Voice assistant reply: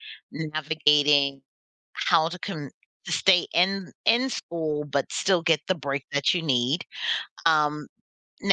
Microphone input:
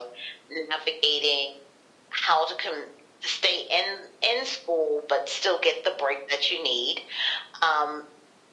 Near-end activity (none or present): none